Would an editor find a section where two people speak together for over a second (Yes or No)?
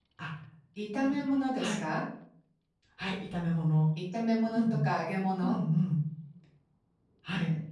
No